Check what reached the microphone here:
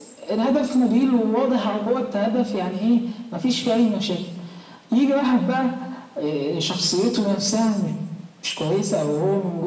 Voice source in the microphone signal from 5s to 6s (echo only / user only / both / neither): echo only